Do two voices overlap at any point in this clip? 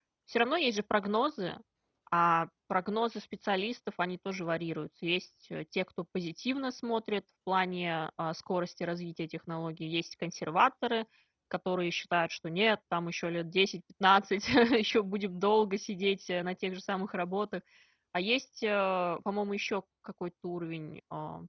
No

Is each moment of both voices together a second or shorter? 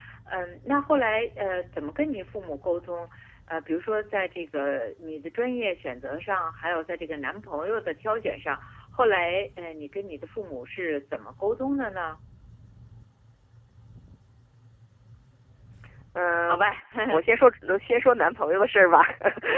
Yes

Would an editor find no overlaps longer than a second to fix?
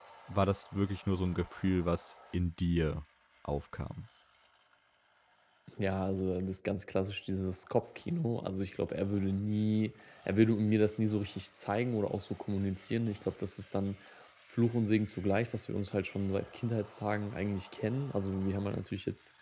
Yes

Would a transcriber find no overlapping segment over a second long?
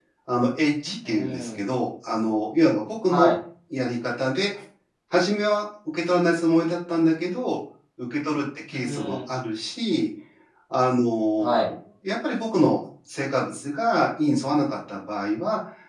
Yes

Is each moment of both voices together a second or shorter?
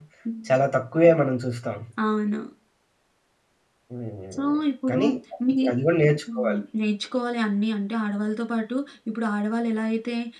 Yes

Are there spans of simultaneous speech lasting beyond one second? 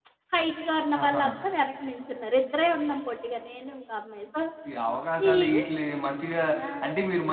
No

